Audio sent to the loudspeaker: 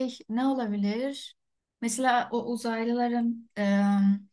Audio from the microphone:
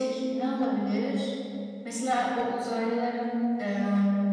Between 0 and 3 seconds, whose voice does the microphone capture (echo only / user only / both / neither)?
echo only